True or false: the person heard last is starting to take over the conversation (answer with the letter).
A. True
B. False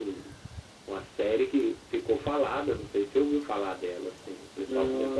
B